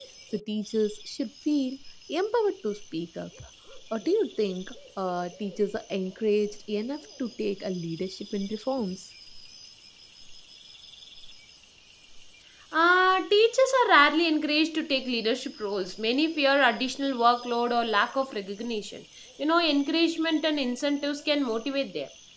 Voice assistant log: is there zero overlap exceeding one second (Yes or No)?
Yes